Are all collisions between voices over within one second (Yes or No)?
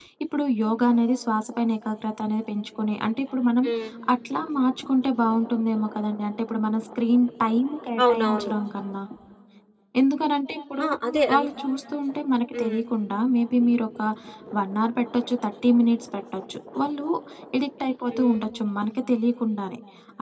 Yes